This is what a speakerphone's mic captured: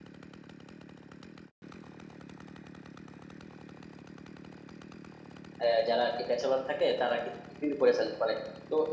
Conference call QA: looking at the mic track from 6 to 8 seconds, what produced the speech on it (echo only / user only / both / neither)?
user only